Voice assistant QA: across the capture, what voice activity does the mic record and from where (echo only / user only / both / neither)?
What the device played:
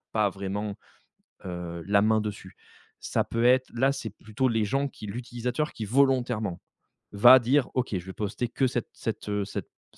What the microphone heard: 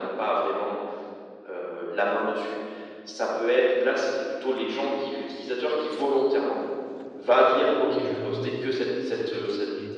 both